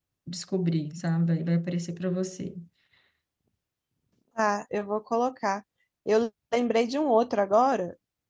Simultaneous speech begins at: none

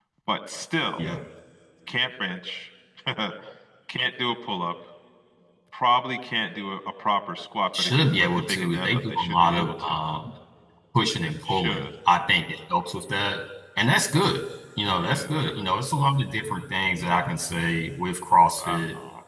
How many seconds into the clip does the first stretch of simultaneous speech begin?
7.8 s

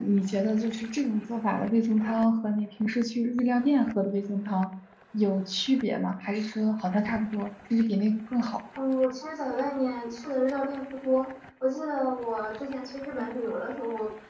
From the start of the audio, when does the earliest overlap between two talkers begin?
none

